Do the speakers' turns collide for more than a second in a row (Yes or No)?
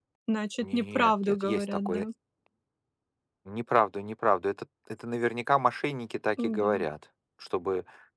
Yes